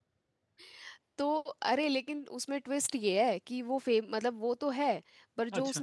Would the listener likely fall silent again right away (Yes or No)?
Yes